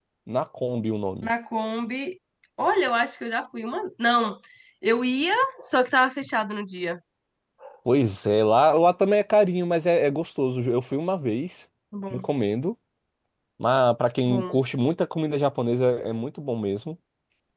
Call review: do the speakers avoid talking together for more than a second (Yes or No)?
Yes